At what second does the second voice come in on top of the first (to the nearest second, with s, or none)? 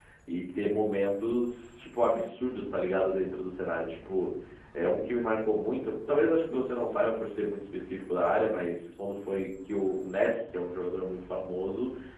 none